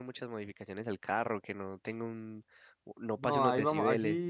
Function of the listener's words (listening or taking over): taking over